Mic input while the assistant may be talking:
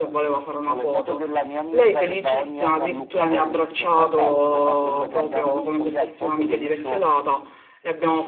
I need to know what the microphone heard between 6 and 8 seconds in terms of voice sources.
both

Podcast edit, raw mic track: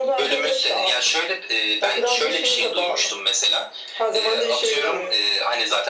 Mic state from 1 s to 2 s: echo only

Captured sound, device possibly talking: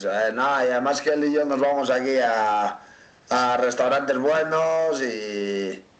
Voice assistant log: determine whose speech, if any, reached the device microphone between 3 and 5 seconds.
echo only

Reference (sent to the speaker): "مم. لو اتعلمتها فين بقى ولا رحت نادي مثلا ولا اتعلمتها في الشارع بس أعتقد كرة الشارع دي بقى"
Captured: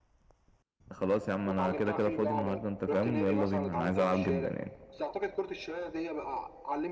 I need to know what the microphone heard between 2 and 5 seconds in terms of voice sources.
both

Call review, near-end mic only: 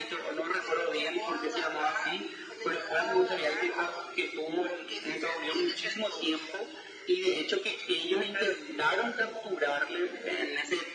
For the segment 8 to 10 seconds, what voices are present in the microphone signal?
echo only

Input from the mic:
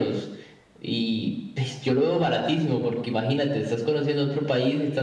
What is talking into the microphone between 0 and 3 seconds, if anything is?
echo only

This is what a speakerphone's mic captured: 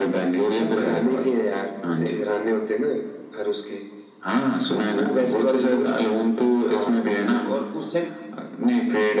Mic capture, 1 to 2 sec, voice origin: echo only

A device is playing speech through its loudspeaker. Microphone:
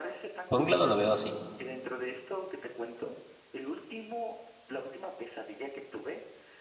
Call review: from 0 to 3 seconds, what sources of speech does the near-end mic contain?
both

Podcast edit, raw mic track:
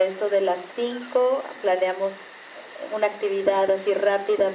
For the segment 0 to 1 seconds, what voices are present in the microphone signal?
echo only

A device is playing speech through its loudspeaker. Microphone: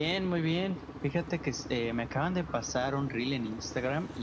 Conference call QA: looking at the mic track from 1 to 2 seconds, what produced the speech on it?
echo only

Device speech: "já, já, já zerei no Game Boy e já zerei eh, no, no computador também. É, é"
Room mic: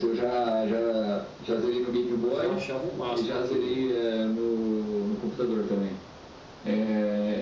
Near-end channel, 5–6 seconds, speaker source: echo only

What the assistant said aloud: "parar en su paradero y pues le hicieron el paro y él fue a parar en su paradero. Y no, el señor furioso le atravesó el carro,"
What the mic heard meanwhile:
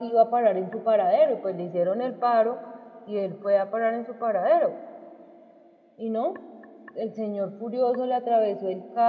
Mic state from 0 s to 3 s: echo only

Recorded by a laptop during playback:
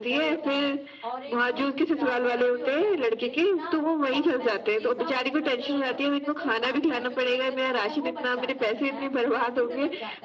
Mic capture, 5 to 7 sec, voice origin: both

